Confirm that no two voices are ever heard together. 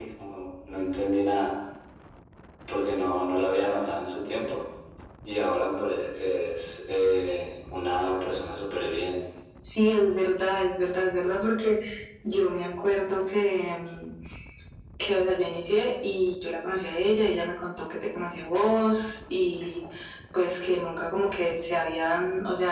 Yes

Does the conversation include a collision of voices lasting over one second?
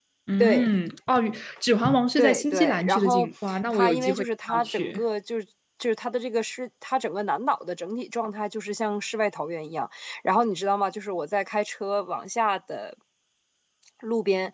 Yes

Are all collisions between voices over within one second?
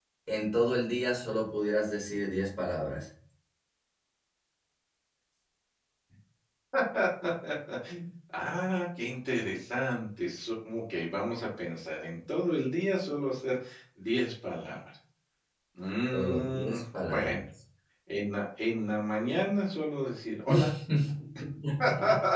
No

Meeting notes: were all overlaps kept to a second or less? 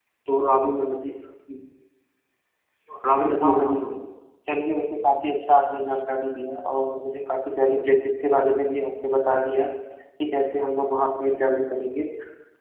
Yes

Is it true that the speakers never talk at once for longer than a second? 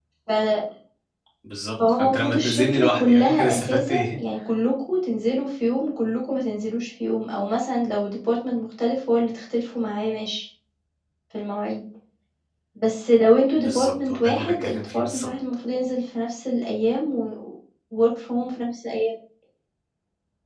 No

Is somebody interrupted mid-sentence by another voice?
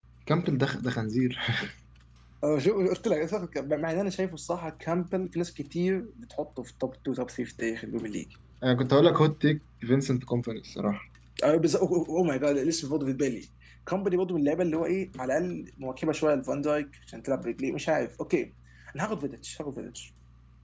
No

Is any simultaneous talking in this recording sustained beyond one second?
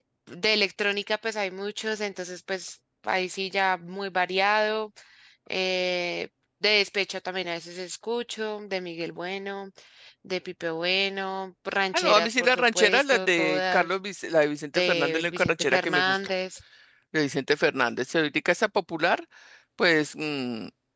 Yes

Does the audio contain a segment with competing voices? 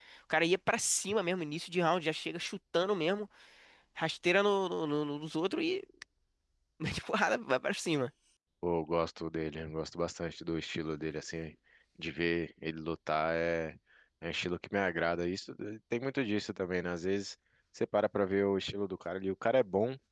No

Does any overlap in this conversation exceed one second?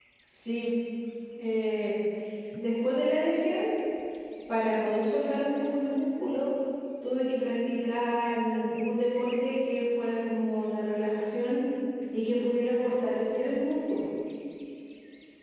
No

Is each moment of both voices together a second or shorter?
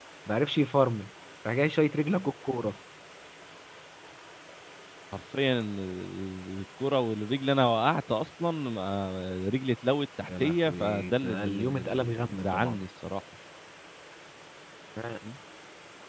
No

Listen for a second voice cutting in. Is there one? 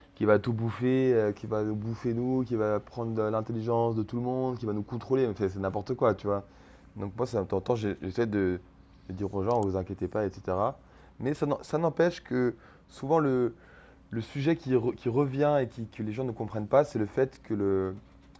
No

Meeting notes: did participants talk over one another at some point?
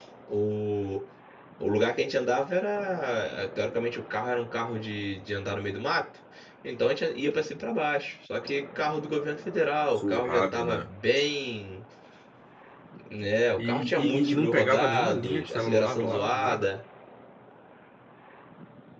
Yes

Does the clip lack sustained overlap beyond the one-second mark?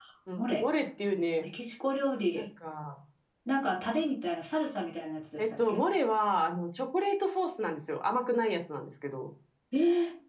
Yes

